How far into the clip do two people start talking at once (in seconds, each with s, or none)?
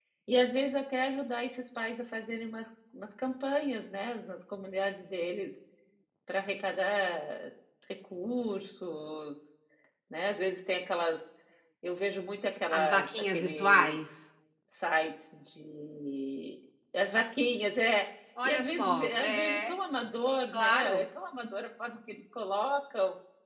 12.7 s